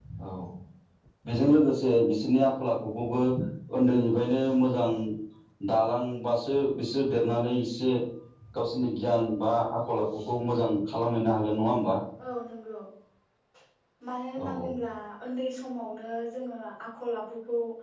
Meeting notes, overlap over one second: none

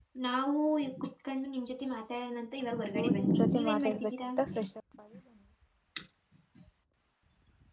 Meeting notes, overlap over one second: present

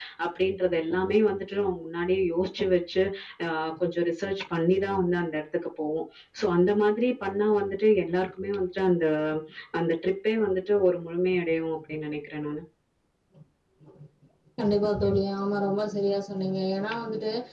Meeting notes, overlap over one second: none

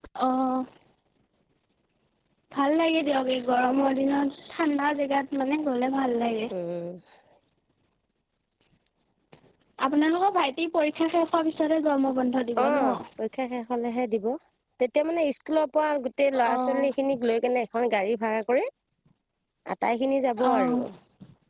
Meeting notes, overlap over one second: none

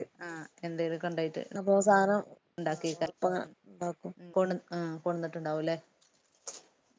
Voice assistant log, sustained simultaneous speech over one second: none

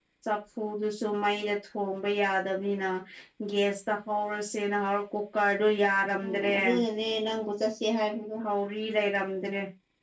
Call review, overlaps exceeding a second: none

